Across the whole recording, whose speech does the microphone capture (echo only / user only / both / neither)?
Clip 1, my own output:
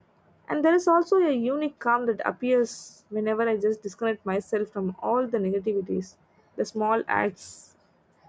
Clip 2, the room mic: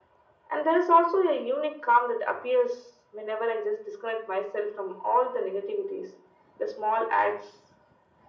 echo only